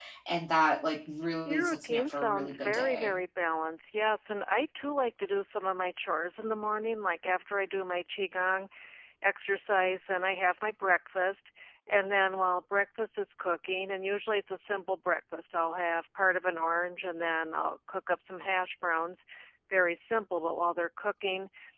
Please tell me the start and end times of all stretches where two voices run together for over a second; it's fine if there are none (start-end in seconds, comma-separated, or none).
1.5-3.2